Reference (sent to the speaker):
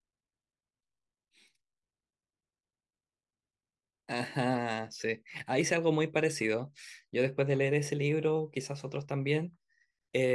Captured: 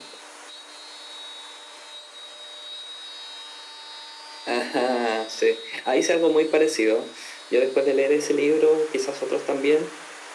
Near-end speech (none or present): none